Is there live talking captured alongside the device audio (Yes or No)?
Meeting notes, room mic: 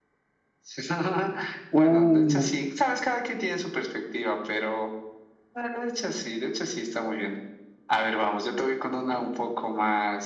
Yes